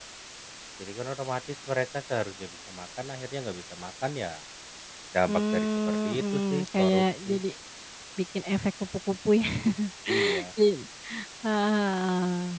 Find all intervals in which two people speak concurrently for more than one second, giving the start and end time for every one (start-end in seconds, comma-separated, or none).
5.3-7.4